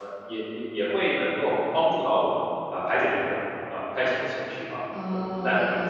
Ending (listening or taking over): taking over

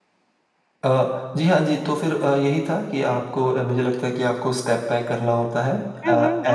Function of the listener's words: taking over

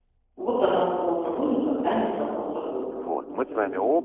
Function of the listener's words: taking over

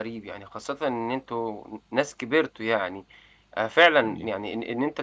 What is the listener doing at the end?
listening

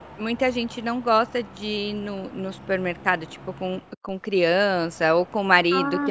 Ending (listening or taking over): listening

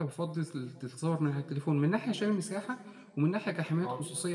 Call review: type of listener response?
listening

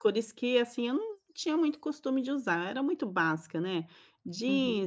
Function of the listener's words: listening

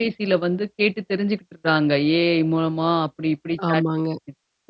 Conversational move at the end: listening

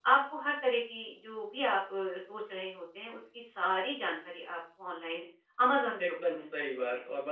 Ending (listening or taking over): taking over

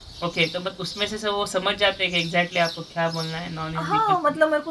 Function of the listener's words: taking over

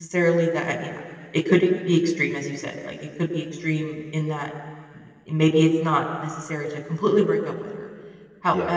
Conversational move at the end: listening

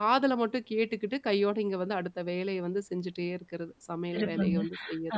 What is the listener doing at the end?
taking over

